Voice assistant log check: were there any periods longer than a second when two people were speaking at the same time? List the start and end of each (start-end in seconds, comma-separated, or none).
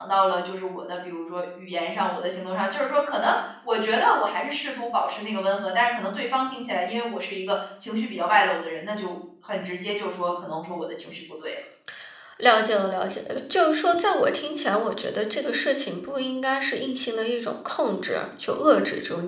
none